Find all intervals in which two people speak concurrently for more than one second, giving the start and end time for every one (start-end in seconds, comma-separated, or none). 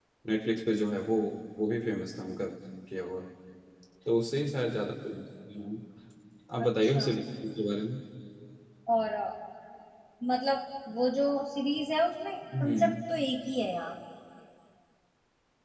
none